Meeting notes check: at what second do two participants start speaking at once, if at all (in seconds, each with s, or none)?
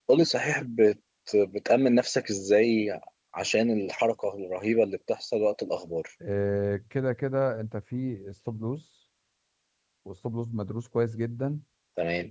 none